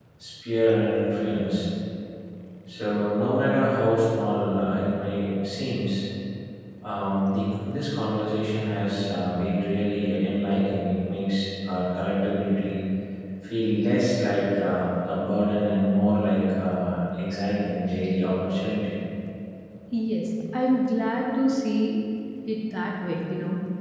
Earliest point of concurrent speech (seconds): none

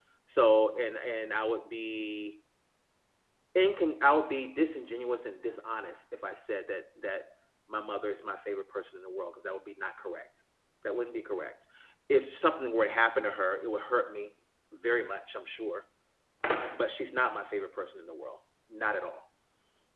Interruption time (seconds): none

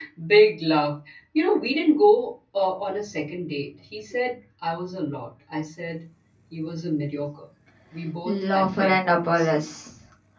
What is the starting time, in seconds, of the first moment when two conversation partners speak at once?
8.2 s

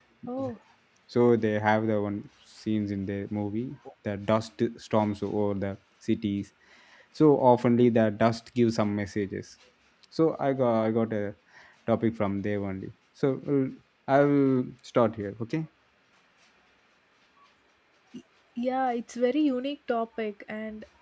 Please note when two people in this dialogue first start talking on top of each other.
none

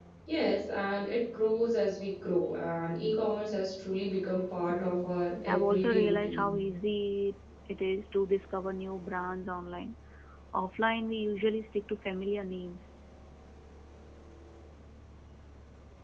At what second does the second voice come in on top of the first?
4.7 s

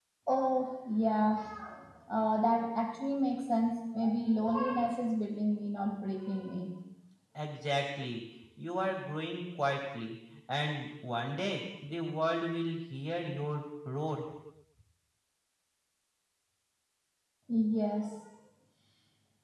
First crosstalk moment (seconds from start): none

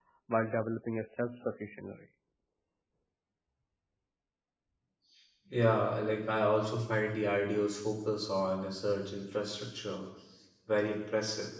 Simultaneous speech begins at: none

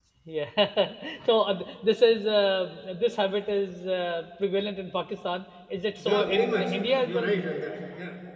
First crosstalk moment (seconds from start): 6.0 s

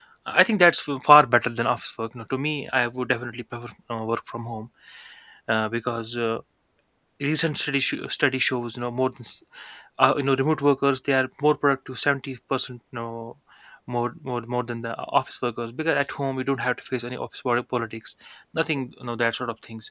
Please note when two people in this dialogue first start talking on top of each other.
none

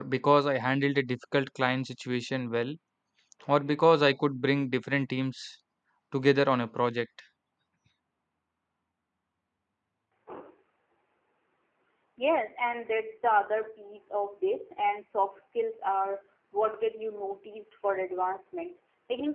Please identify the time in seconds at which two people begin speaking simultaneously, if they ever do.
none

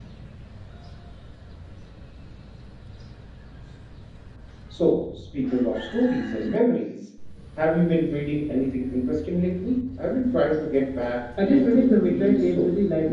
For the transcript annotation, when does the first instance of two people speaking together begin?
11.4 s

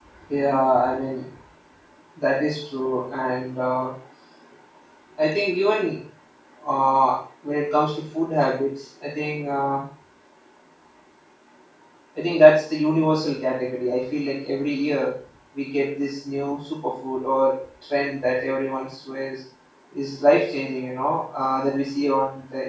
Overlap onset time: none

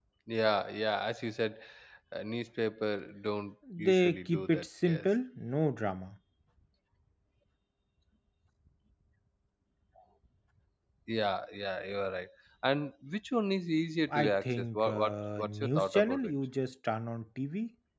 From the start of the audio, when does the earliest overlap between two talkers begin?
3.8 s

